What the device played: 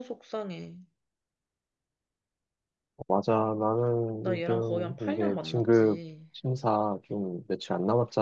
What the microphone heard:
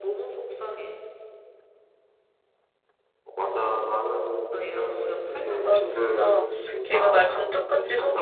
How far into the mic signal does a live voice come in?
5.6 s

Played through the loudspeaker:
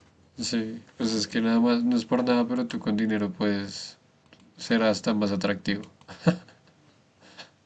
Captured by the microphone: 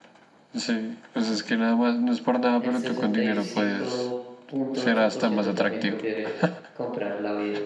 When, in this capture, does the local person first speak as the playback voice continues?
2.6 s

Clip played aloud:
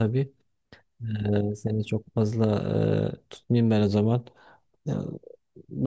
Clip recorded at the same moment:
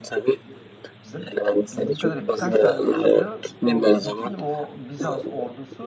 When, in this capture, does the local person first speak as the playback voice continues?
1.0 s

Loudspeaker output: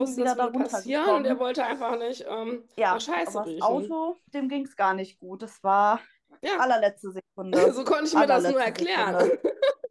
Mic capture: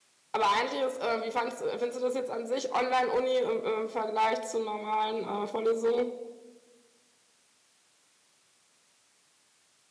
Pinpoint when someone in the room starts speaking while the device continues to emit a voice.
0.3 s

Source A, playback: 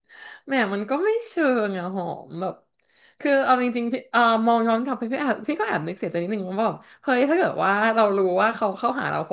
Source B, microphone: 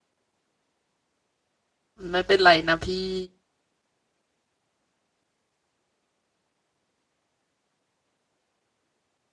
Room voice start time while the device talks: 2.1 s

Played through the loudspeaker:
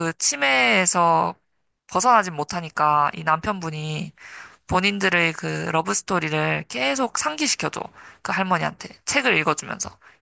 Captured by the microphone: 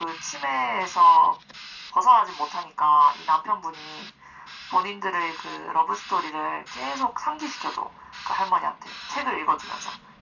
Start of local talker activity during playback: none

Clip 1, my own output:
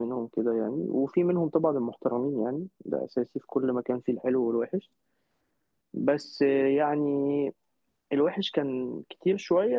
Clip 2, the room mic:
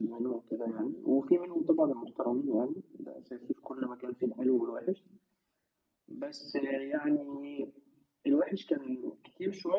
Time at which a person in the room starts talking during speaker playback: none

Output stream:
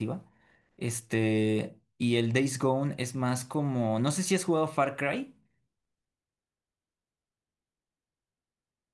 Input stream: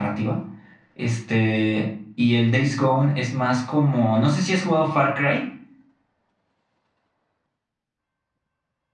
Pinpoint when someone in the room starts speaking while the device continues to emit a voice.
none

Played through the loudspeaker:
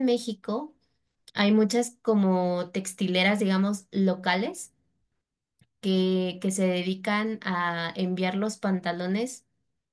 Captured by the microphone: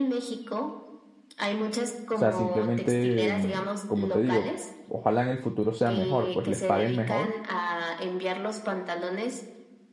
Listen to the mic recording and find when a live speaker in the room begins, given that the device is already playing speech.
2.1 s

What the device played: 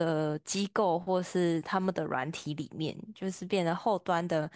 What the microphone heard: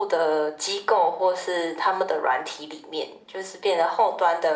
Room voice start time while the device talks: none

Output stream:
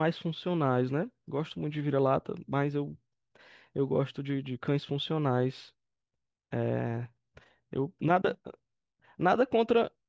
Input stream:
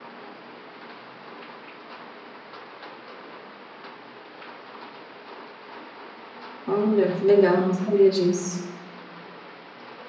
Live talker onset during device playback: 6.7 s

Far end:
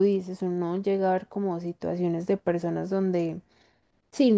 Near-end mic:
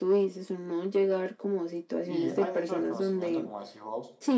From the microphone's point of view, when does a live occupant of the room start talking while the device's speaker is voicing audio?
2.0 s

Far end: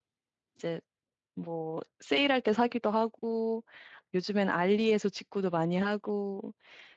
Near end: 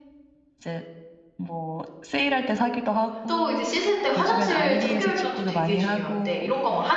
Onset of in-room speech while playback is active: 3.3 s

